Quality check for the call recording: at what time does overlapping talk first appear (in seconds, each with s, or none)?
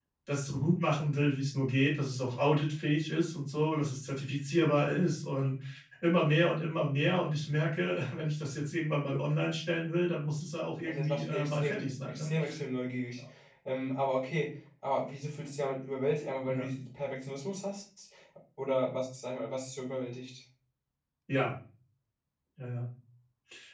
10.8 s